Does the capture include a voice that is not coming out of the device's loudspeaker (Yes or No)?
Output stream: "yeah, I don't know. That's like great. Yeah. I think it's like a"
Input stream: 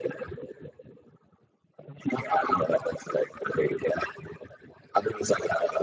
No